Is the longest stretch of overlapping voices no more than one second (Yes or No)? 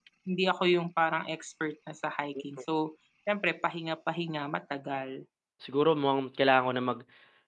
Yes